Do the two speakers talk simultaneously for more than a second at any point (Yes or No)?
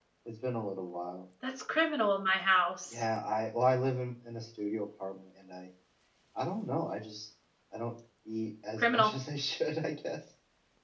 No